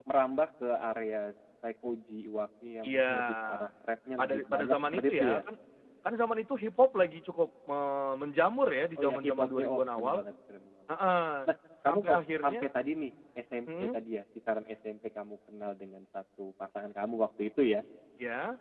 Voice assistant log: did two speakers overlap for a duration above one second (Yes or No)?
Yes